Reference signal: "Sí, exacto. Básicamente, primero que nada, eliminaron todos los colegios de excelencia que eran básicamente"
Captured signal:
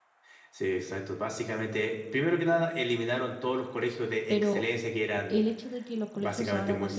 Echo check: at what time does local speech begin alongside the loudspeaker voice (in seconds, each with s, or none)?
4.3 s